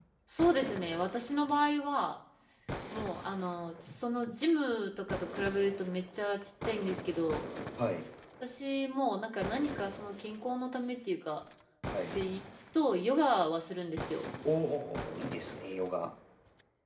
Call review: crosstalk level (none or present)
none